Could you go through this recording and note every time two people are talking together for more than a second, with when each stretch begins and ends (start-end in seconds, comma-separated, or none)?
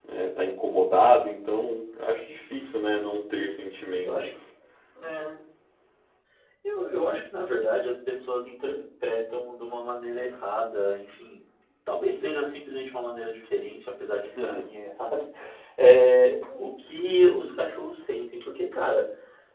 none